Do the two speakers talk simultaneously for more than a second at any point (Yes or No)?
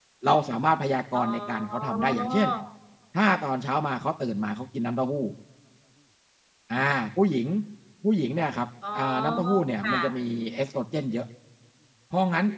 Yes